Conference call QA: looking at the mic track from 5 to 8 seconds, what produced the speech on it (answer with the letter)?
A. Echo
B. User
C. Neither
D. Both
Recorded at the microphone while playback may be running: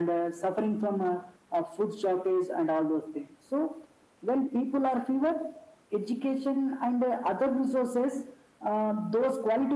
A